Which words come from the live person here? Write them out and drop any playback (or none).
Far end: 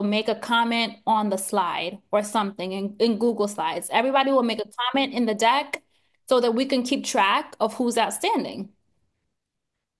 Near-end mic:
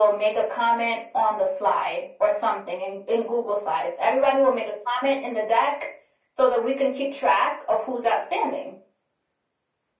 none